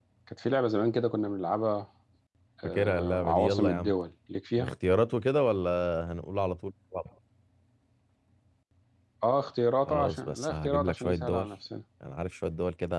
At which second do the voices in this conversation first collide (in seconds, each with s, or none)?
2.6 s